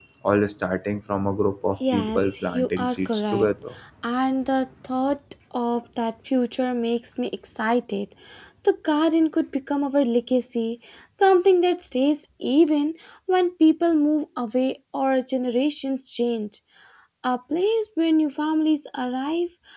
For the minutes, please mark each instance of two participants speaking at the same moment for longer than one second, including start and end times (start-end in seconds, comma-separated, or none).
1.9-3.5